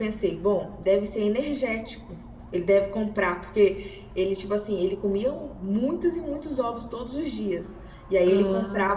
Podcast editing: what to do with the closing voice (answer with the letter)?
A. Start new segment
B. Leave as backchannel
B